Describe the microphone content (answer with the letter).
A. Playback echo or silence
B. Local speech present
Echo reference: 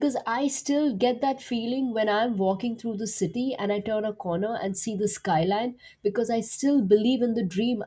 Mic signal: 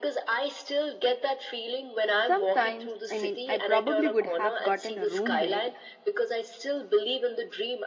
B